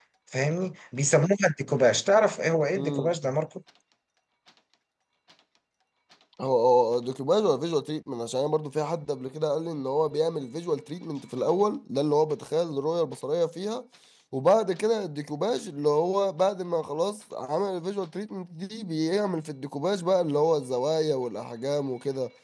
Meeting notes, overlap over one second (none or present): none